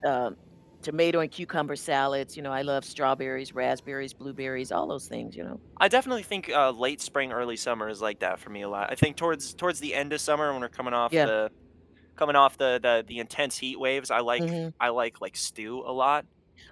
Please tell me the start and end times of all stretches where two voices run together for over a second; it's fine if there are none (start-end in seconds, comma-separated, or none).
none